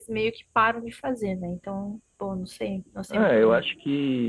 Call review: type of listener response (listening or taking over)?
taking over